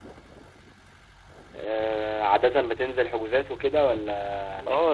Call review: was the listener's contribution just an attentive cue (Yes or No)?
No